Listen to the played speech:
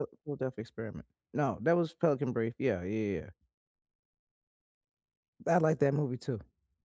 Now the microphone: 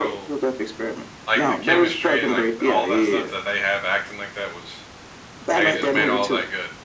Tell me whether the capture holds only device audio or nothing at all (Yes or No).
No